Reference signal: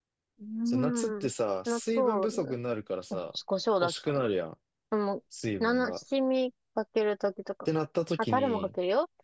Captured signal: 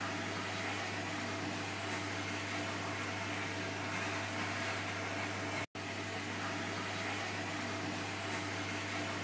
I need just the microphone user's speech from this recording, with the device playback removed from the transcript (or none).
none